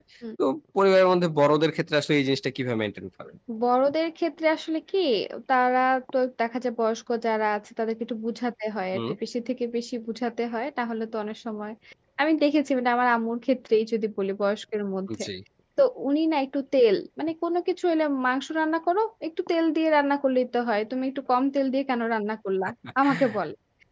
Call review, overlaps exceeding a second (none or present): none